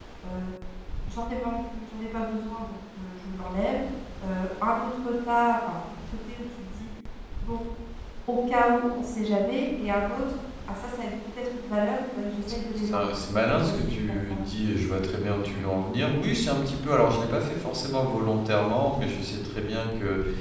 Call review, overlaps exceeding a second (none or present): present